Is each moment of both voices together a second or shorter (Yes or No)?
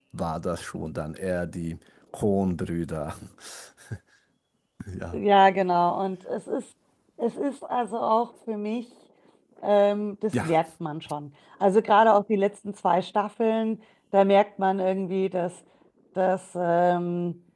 Yes